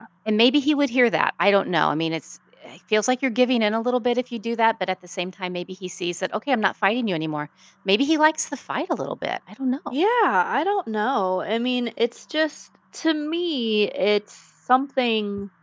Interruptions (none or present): none